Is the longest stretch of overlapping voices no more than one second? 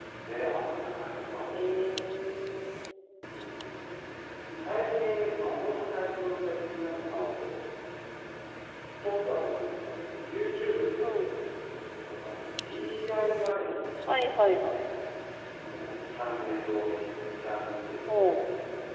Yes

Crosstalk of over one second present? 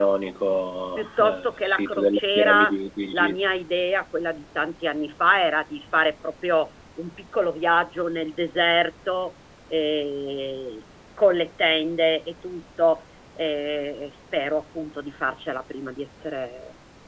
Yes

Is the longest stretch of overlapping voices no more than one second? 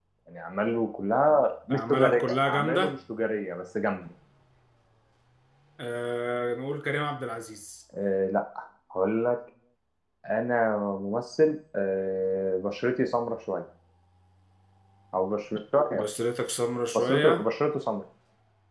No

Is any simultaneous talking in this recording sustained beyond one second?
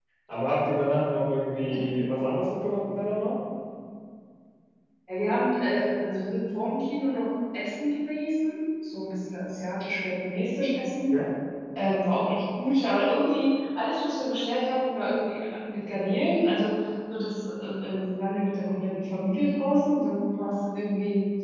No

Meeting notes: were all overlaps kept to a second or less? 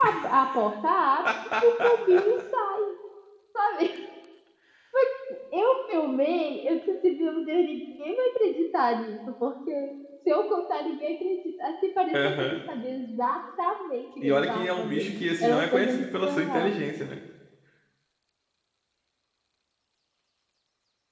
No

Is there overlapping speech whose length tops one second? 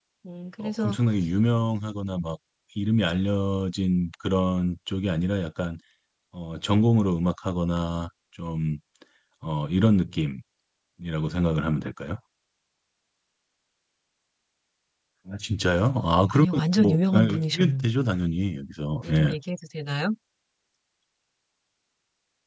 Yes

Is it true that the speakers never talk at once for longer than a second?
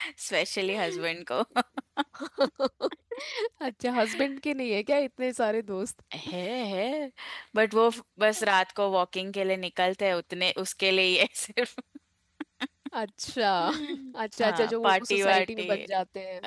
No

